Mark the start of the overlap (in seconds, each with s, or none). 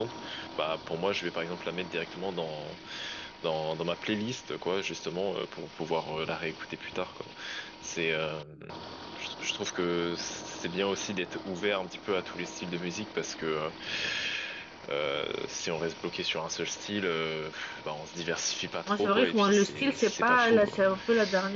18.9 s